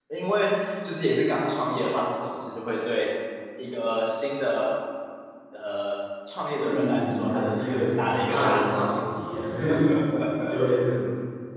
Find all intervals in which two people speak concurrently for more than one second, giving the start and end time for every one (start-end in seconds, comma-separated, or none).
6.6-8.6